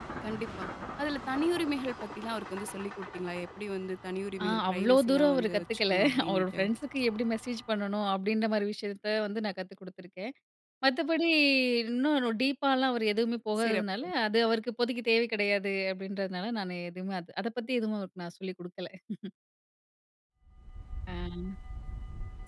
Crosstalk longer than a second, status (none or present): present